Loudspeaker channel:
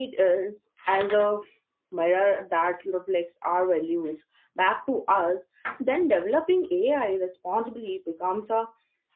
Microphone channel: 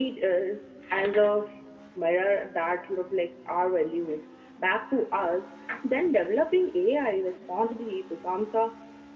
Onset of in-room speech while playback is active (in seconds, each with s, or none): none